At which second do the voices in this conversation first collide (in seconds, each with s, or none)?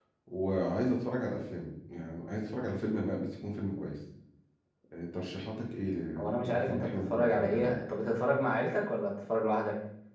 6.2 s